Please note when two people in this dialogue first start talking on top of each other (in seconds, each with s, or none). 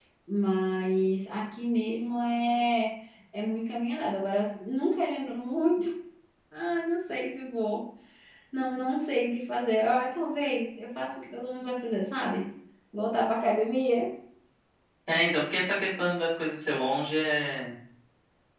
none